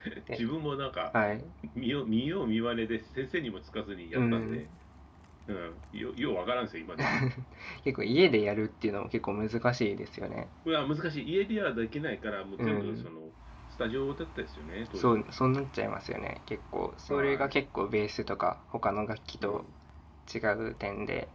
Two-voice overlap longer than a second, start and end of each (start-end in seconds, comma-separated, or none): none